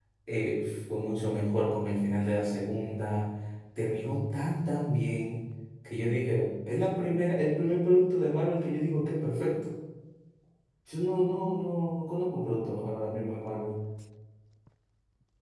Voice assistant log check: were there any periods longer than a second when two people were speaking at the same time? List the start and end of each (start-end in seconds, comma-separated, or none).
none